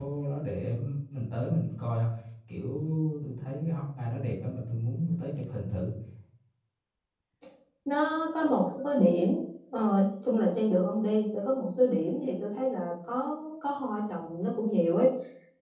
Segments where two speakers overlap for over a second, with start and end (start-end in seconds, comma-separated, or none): none